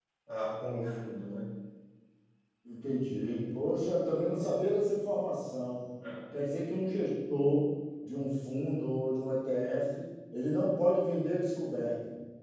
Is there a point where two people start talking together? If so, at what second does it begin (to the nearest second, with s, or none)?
none